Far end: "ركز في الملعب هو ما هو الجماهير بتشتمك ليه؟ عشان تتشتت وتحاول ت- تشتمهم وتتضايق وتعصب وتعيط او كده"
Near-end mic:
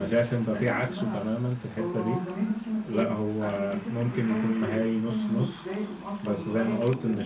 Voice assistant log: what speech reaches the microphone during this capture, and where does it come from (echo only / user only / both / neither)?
both